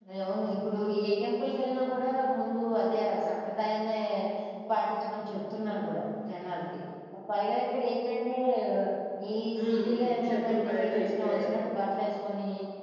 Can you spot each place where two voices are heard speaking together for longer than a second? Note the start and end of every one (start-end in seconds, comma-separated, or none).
9.6-11.5